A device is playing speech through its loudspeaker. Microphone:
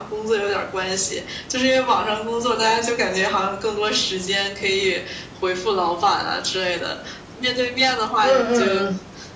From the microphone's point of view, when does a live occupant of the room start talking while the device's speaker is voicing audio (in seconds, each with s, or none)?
8.2 s